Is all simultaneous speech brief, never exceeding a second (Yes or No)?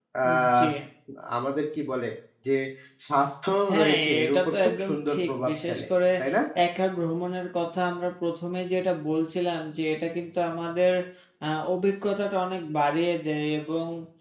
No